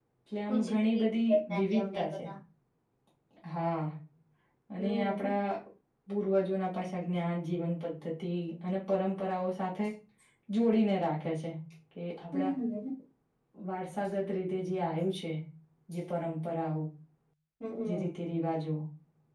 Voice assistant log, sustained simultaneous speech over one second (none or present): present